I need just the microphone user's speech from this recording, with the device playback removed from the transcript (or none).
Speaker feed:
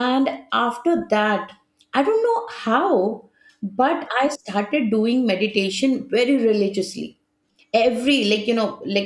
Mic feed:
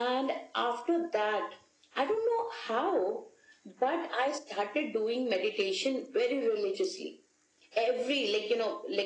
none